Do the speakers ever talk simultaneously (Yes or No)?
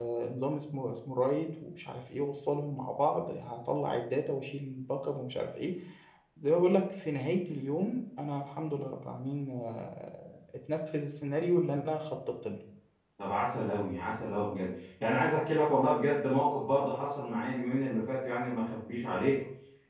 No